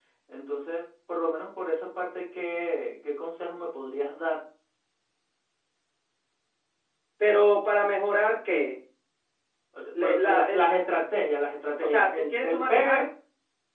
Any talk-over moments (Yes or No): Yes